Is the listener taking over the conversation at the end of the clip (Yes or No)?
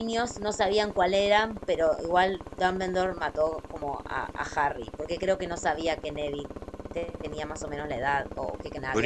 Yes